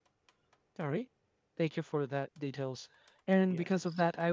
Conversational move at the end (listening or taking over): listening